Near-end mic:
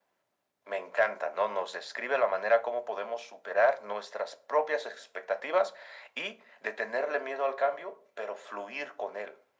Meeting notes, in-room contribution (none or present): none